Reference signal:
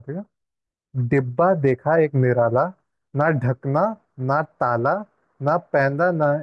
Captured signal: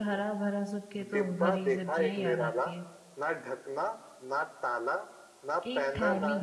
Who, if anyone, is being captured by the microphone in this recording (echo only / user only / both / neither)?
both